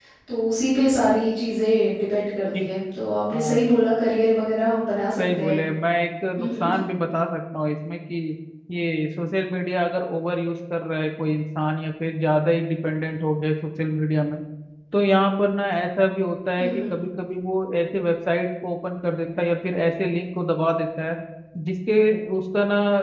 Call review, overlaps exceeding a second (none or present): none